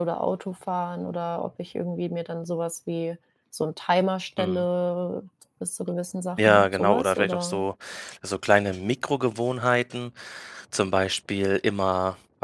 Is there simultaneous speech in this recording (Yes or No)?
Yes